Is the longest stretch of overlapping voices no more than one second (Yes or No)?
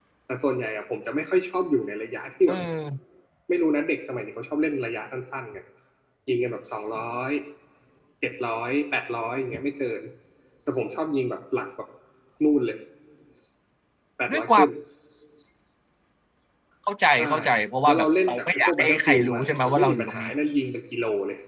No